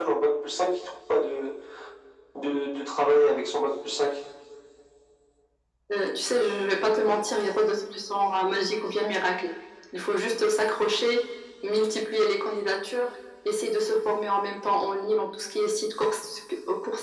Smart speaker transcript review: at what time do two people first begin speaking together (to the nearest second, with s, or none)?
none